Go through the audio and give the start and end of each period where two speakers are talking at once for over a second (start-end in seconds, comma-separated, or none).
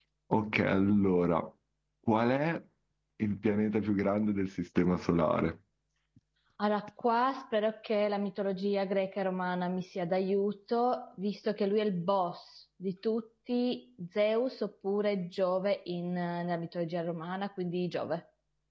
none